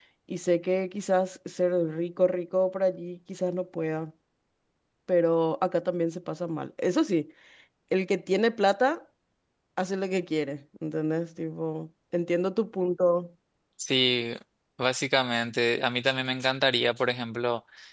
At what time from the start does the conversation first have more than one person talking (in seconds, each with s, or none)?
none